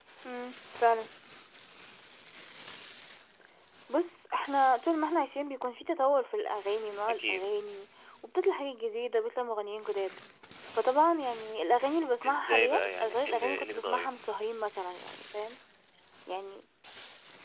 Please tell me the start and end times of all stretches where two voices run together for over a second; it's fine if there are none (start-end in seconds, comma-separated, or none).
12.3-14.1